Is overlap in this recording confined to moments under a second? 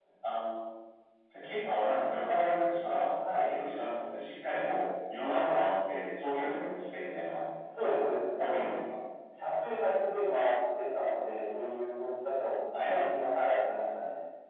Yes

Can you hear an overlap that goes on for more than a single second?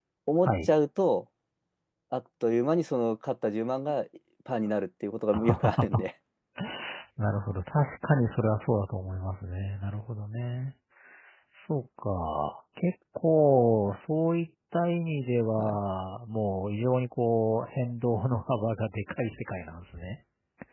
No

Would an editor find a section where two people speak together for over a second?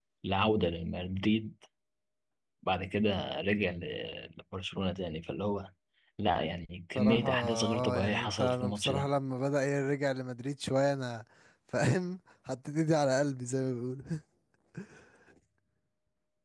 Yes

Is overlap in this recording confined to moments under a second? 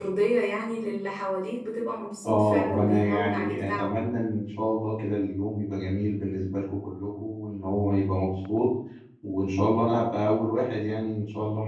No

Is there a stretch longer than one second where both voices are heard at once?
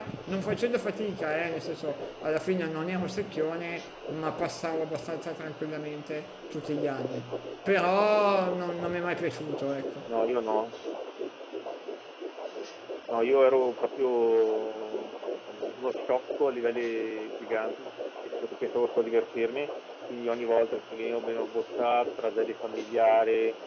No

